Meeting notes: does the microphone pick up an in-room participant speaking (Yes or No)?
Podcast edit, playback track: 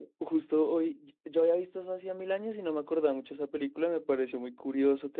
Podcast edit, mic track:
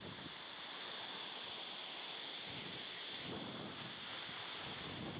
No